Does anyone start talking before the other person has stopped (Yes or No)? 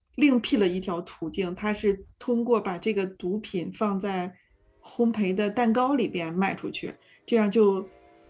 No